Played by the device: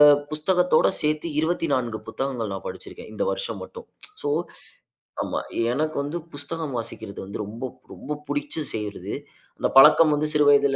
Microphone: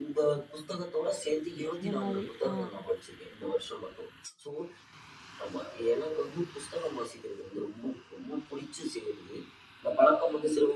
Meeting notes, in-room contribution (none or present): present